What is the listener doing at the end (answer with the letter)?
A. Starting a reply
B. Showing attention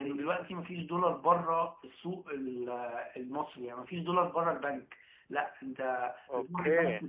B